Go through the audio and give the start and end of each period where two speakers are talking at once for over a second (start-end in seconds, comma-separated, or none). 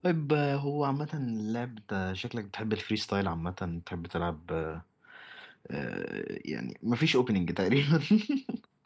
none